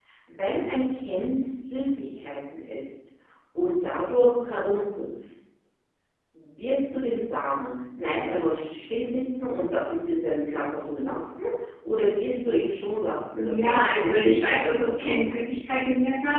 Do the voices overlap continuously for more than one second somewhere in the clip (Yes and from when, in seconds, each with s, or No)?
Yes, from 13.3 s